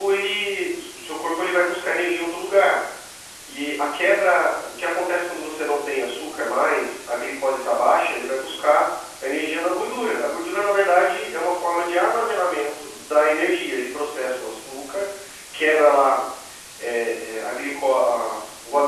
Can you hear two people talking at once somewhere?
No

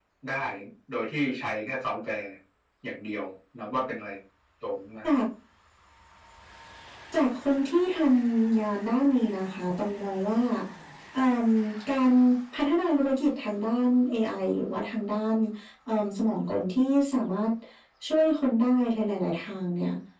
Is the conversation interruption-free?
Yes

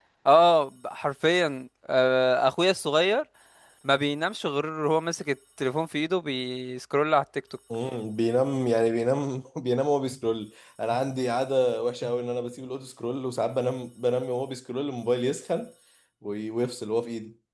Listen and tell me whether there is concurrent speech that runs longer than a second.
No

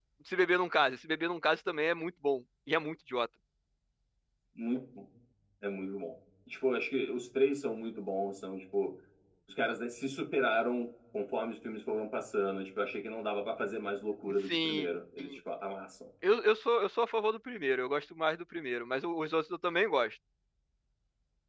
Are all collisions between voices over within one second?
Yes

